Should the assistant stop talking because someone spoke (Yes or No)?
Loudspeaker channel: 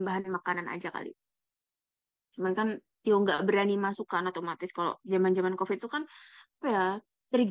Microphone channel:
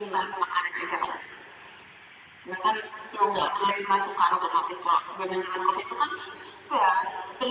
No